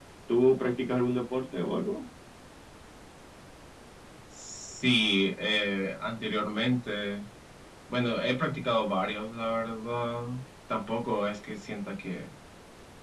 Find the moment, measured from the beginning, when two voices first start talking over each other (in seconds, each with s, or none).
none